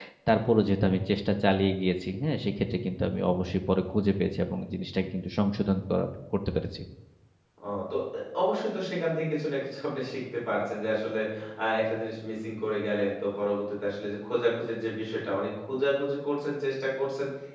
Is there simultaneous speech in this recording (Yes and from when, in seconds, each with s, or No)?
No